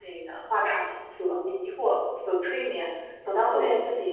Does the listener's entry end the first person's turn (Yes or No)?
No